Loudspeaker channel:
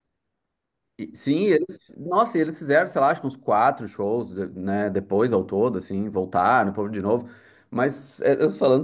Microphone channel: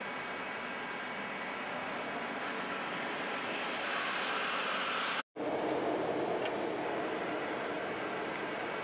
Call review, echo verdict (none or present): none